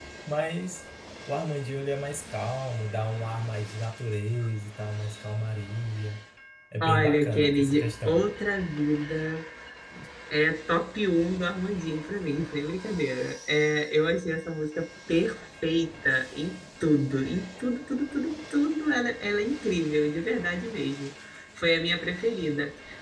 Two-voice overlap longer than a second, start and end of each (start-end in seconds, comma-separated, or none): 6.8-8.2